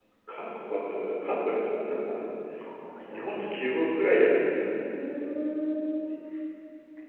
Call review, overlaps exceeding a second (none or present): none